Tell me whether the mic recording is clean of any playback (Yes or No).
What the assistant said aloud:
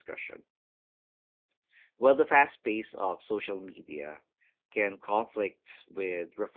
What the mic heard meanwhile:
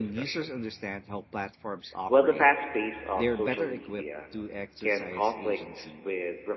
No